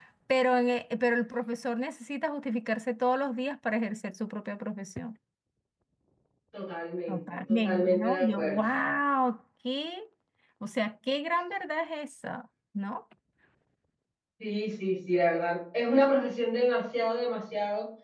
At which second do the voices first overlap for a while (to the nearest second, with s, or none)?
7 s